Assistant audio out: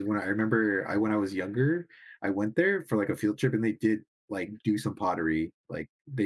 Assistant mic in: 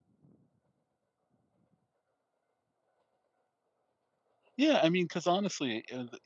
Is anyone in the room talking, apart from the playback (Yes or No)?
Yes